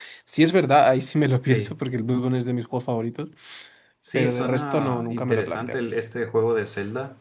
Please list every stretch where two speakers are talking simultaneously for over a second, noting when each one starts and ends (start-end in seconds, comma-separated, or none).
4.2-5.8